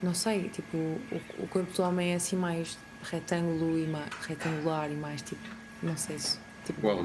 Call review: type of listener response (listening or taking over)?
taking over